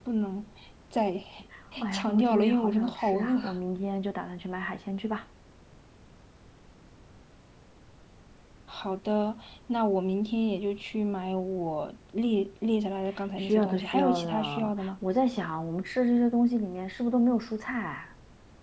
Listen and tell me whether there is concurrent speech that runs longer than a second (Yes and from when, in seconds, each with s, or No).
Yes, from 1.9 s